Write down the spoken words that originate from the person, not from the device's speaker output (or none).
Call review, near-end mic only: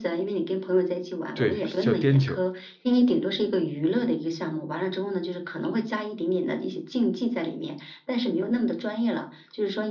对，叫颠球。